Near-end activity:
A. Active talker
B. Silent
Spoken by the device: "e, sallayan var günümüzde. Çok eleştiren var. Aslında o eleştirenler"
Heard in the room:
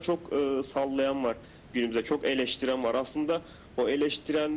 B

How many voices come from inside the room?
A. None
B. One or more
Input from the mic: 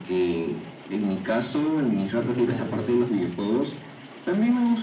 B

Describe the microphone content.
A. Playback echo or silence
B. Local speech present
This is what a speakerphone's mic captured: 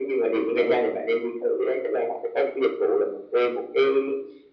B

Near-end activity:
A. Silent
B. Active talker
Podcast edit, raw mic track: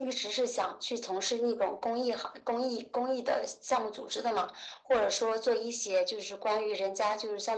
A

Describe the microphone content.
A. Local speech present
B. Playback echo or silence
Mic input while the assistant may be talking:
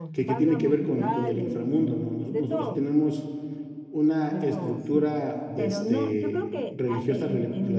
A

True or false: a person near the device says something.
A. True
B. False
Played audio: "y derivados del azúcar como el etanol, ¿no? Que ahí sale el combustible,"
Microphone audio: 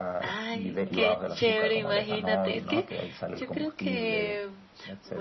A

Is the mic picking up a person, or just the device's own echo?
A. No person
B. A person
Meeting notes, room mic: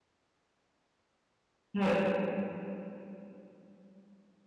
B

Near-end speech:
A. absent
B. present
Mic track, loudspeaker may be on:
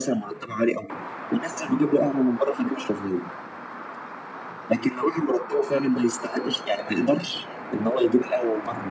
A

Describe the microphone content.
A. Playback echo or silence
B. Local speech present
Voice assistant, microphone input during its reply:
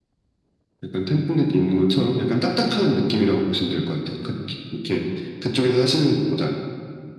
A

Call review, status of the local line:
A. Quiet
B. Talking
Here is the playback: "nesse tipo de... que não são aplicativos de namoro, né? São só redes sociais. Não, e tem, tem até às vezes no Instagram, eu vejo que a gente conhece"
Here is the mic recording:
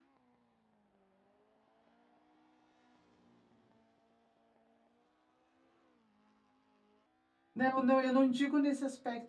B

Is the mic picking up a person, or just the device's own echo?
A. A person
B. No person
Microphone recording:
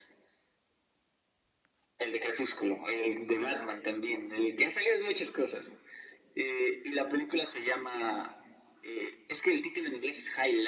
B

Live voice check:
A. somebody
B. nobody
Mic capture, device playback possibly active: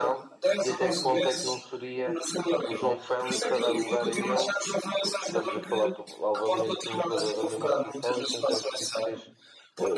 A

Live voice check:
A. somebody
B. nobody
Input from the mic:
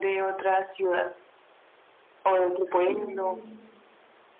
A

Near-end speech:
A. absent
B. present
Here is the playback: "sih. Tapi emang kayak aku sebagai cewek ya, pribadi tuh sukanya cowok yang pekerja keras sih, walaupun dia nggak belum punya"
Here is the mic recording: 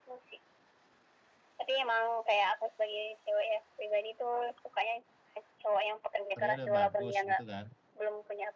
B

